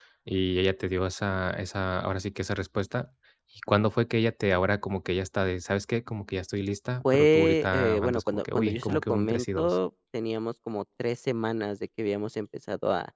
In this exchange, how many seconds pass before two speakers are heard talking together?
7.0 s

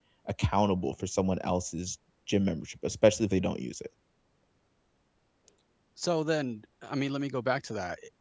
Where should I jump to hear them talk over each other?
none

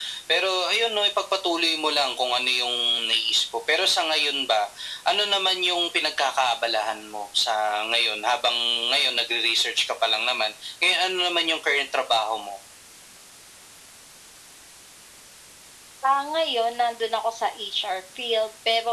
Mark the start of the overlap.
none

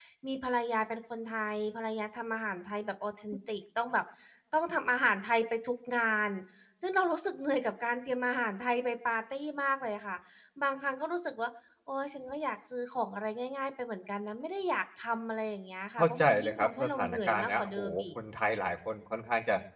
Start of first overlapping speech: 16.0 s

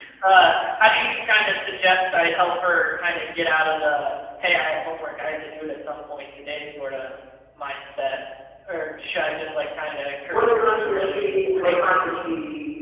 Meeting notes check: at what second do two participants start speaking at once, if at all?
10.3 s

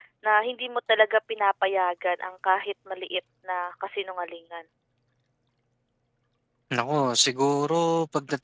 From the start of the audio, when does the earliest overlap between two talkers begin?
none

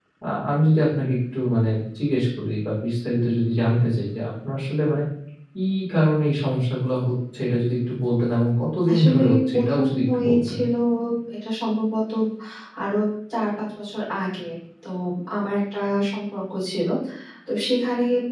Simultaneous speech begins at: 8.9 s

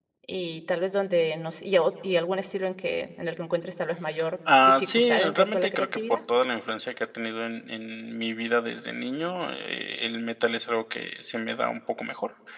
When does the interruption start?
4.5 s

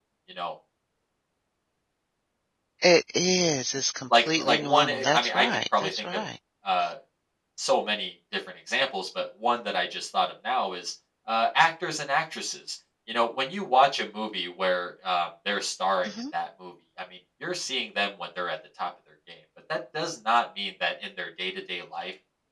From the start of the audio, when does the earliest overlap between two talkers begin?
4.1 s

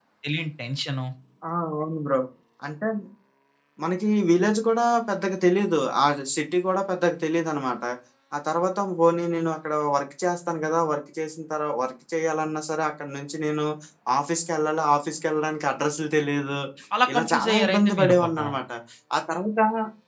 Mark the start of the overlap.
17.1 s

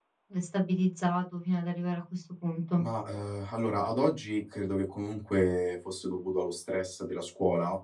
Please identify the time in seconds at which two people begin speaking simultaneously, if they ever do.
none

